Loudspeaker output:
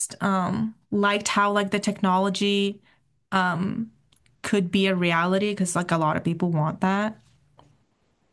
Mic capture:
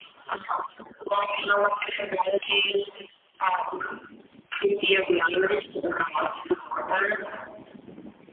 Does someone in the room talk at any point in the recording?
No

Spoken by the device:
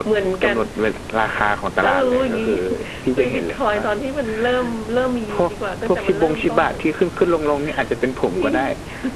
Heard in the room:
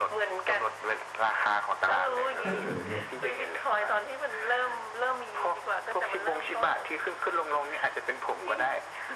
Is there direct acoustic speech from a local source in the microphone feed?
Yes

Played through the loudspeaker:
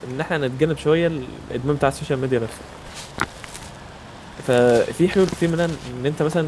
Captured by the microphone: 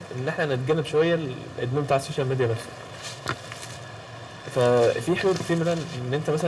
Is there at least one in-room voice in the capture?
No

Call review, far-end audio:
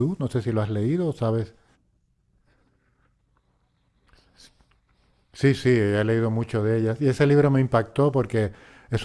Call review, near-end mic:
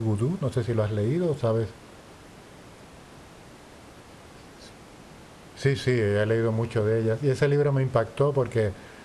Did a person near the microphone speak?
No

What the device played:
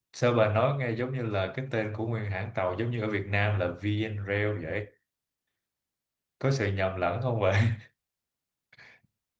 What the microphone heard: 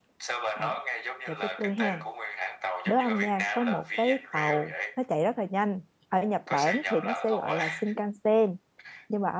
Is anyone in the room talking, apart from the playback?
Yes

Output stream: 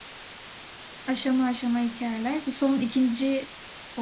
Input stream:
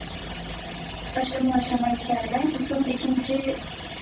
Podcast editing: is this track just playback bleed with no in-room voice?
Yes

